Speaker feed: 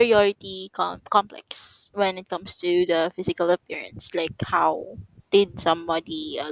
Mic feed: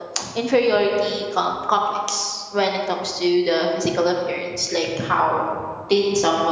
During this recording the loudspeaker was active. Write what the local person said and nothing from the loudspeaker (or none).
none